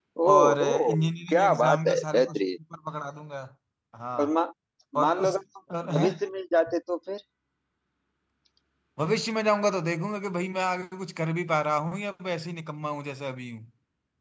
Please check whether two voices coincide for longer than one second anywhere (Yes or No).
Yes